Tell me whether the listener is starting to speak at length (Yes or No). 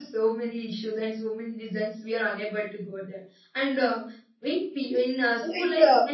Yes